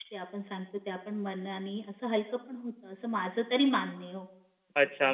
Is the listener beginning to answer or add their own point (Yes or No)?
Yes